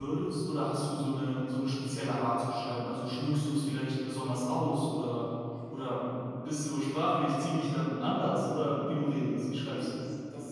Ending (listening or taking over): taking over